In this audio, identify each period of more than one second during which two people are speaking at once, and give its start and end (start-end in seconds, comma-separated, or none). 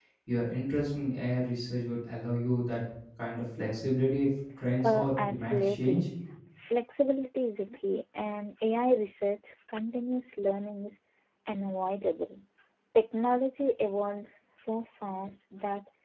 4.8-6.1